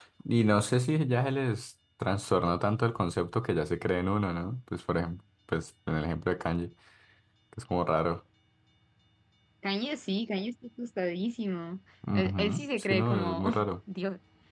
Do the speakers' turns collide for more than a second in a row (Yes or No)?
Yes